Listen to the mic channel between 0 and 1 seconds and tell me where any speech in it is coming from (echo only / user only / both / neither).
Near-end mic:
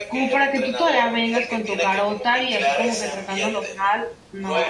both